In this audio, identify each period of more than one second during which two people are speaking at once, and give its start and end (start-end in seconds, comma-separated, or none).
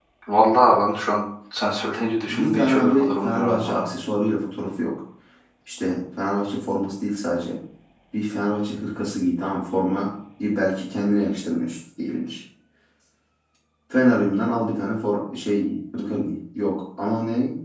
2.2-3.9